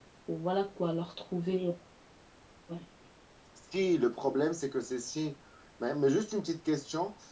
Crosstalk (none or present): none